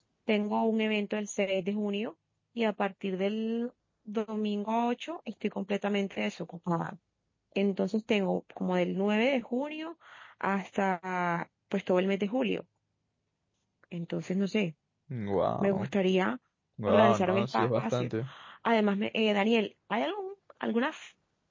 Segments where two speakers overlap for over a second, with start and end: 16.9-18.1

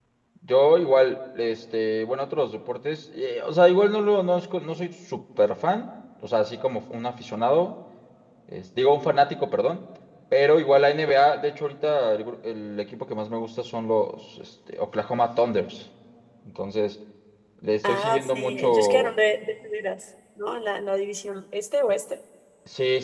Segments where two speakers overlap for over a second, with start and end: 17.8-19.1

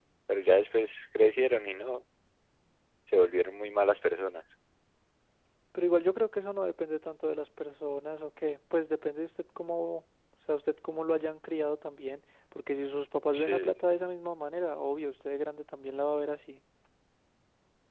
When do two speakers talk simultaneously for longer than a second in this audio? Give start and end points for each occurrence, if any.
none

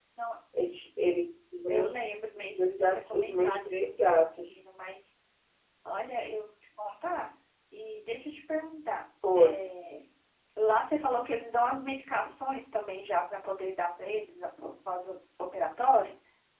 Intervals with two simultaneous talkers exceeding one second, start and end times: 2.4-4.5

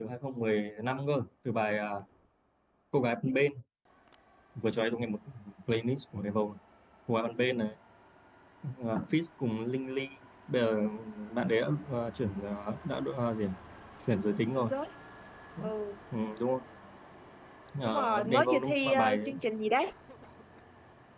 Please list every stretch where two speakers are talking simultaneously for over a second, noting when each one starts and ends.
17.8-19.2

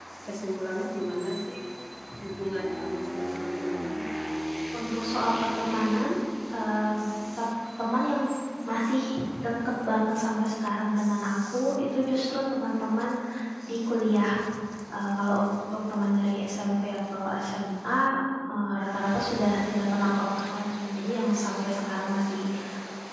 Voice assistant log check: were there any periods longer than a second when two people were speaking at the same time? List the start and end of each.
none

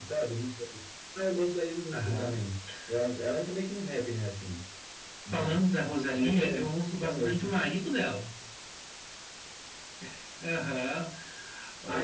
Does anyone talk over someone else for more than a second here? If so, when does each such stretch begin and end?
6.1-7.6

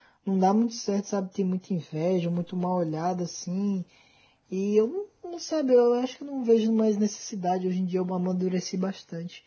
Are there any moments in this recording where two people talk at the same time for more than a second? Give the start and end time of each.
none

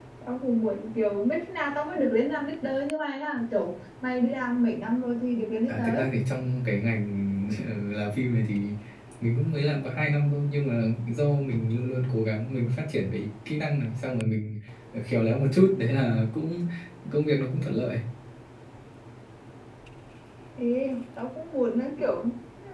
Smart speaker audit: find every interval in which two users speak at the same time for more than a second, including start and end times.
none

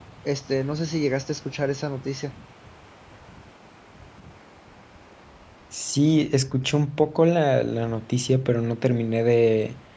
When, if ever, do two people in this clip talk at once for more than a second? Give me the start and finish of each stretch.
none

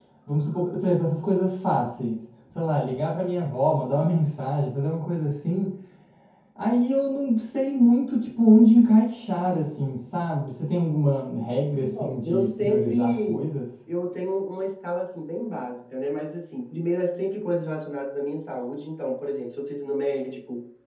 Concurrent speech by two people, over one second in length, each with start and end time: 11.8-13.4

